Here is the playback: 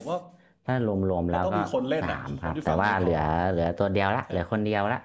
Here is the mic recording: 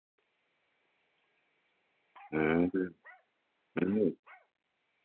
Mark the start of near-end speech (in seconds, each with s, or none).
2.3 s